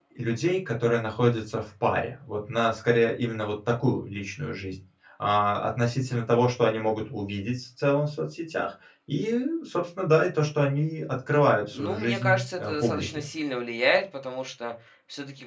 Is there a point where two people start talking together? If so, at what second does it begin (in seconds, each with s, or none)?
11.7 s